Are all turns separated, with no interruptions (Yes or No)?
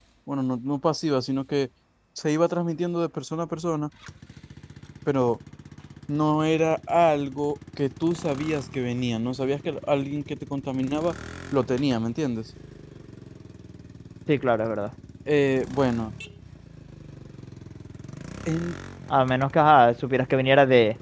Yes